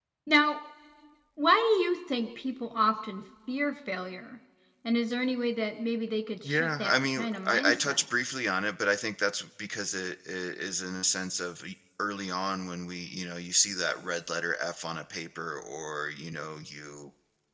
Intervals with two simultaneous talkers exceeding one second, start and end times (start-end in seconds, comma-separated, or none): 6.4-8.0